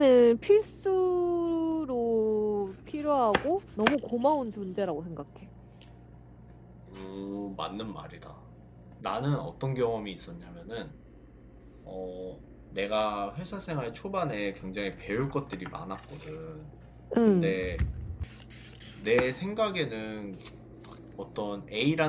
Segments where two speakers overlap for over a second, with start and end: none

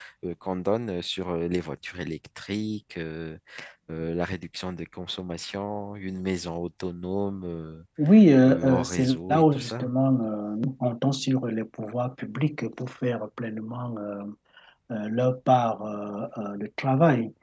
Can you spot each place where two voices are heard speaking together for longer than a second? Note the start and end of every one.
8.5-9.9

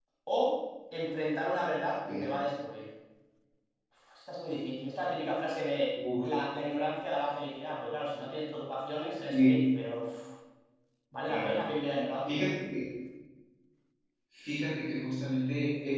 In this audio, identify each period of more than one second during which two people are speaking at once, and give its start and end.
none

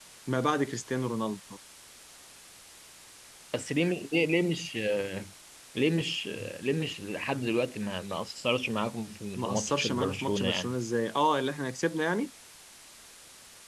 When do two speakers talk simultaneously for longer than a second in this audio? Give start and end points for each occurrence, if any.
9.4-10.7

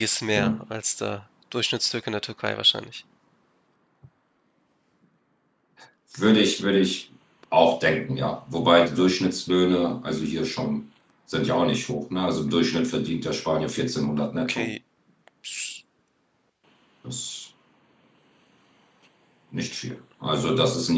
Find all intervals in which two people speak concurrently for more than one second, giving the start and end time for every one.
none

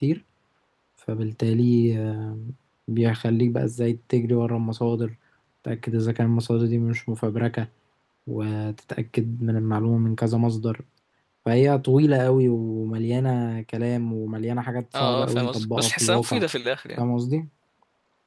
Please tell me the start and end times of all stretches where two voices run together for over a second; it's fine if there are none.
15.0-16.4

